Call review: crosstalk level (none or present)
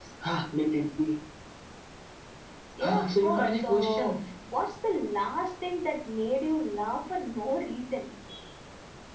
present